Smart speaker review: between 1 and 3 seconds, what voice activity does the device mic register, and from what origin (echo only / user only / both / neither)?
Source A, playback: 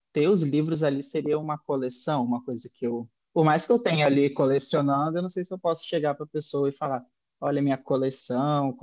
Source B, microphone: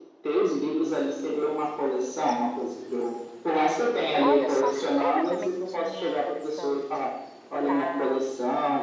echo only